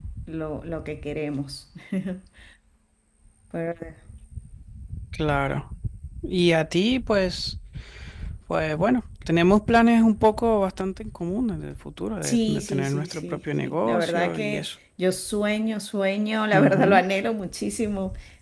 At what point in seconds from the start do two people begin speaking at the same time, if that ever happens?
12.2 s

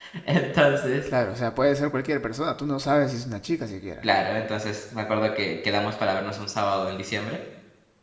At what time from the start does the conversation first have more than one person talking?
none

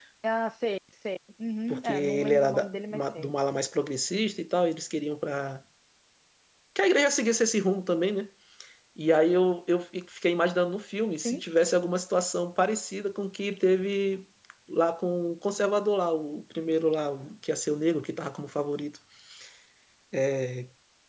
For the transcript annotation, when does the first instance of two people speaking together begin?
1.7 s

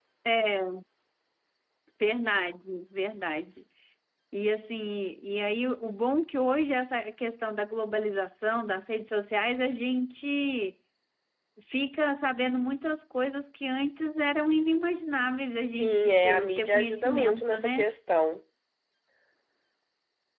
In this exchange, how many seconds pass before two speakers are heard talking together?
15.8 s

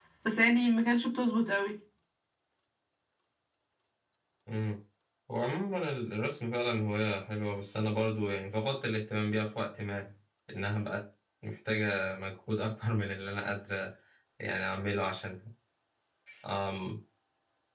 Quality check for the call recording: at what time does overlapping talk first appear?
none

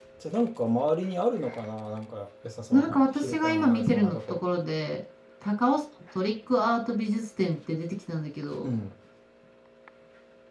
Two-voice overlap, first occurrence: 2.7 s

